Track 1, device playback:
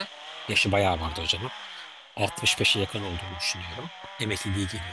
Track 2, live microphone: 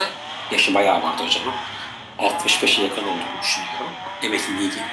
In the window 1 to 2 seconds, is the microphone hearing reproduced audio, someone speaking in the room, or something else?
echo only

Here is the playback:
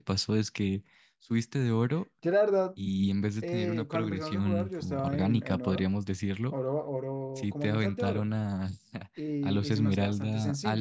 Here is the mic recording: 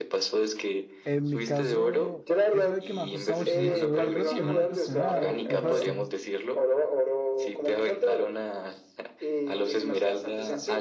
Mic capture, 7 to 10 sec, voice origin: echo only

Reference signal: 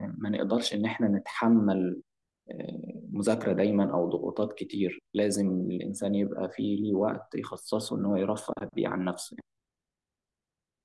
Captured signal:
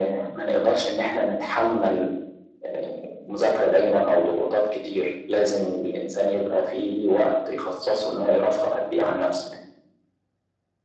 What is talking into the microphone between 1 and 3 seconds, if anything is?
echo only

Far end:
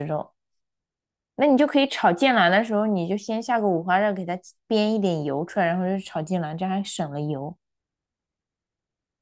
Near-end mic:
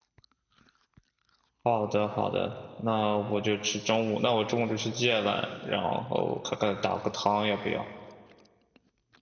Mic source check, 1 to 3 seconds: user only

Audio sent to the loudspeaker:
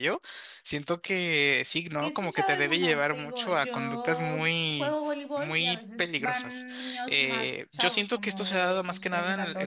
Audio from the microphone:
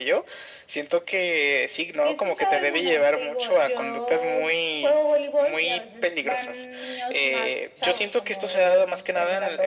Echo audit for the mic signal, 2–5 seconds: echo only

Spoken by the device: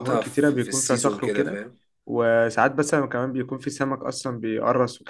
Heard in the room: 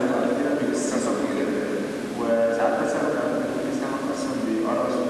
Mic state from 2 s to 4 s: echo only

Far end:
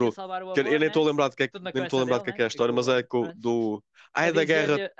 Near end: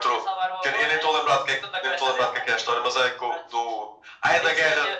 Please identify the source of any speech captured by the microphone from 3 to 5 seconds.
echo only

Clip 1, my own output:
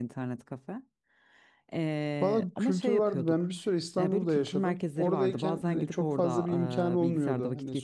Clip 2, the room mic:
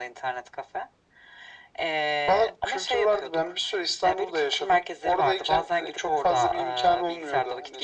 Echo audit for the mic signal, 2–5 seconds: echo only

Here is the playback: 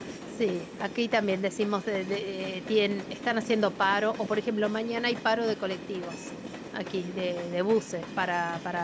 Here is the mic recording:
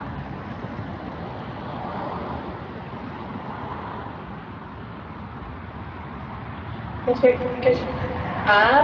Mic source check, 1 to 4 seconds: neither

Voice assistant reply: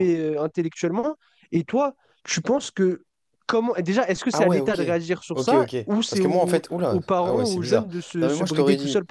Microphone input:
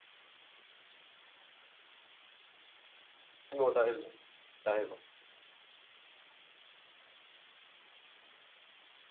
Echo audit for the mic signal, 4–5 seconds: user only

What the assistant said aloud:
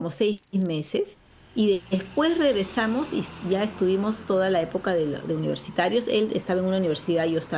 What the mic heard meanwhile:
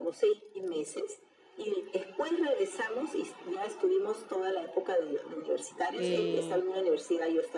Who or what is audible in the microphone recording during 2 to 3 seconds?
echo only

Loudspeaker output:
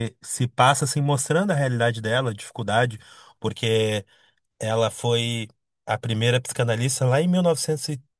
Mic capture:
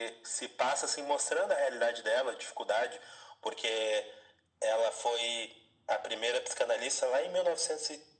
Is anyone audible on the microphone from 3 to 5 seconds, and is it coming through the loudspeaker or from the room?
echo only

